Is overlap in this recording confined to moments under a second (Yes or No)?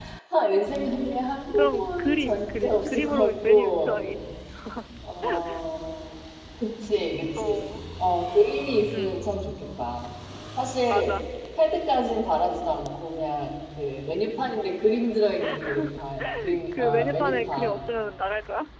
No